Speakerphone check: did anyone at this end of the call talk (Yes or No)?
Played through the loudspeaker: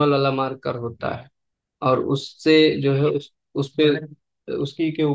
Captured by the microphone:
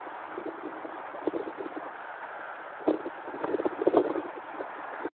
No